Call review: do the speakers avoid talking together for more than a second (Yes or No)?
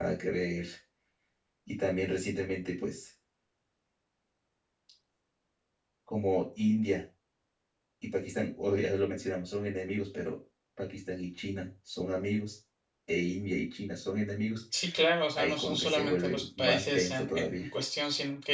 No